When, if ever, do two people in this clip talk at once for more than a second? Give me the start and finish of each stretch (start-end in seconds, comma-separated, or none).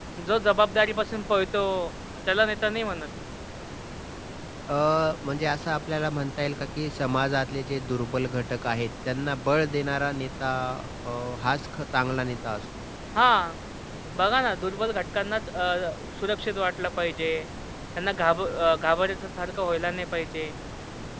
none